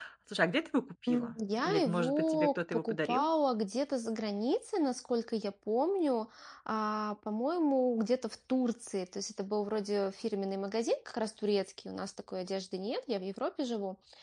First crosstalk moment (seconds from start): 1 s

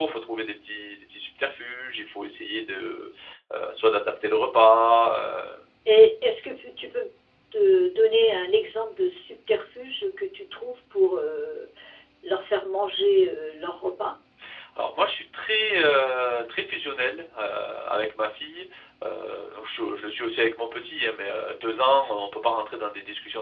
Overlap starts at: none

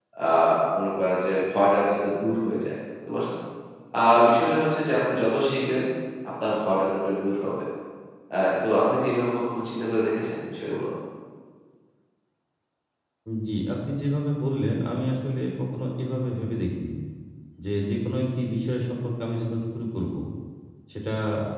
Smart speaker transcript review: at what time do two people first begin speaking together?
none

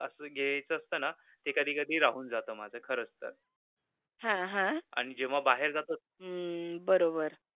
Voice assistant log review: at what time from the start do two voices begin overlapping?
none

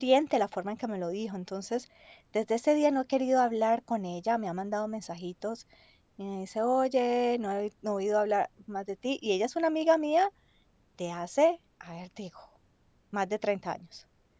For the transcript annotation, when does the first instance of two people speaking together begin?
none

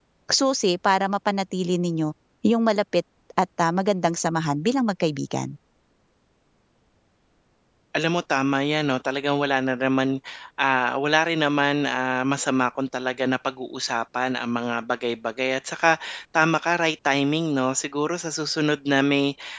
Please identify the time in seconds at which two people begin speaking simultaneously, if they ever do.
none

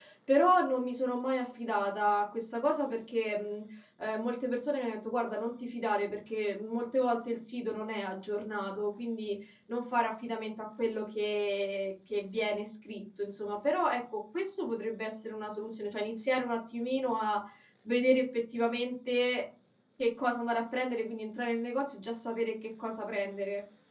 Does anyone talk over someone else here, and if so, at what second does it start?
none

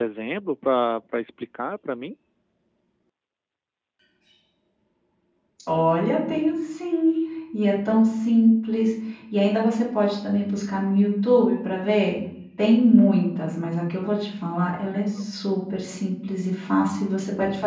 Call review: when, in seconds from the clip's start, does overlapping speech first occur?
none

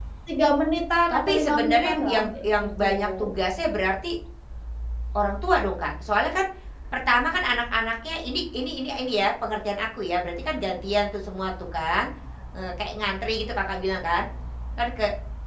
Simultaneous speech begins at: 1 s

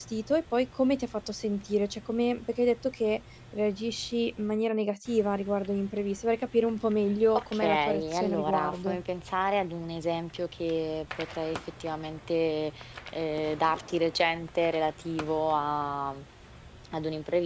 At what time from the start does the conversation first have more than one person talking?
7 s

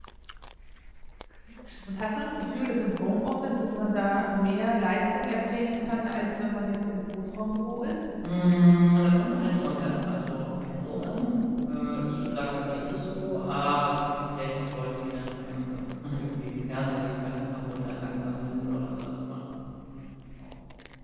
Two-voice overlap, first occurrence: none

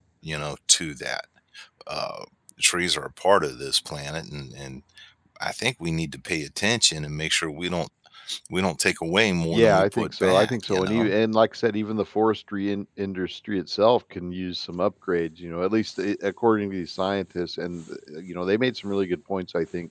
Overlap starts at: 10 s

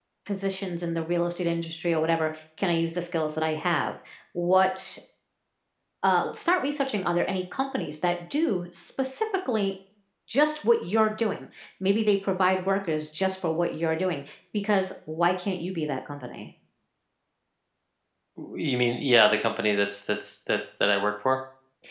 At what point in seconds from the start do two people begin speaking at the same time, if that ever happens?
none

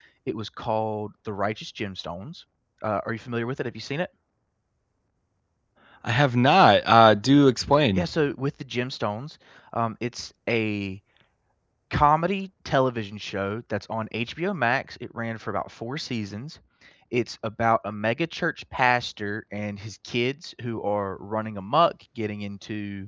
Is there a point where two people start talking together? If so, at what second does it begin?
none

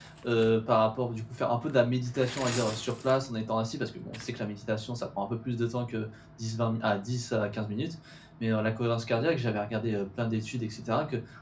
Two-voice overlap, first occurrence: none

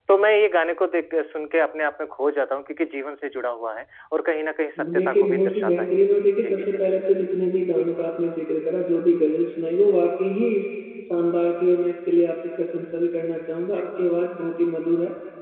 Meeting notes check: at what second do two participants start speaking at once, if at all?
5 s

